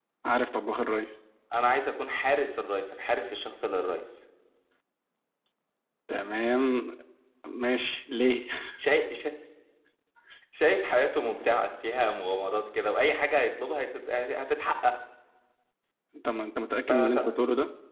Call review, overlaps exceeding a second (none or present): none